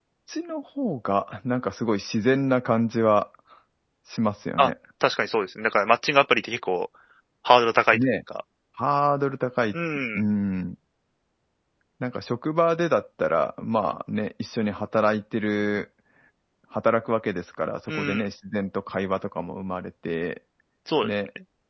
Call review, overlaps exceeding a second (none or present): none